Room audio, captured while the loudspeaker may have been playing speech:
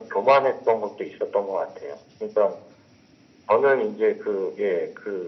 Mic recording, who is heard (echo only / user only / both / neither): echo only